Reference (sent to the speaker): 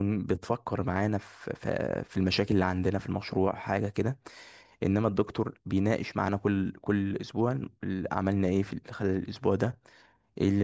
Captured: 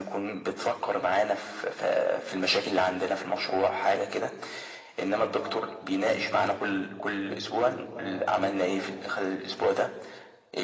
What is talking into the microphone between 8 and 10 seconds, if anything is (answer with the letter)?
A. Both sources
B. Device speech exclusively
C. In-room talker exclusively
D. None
A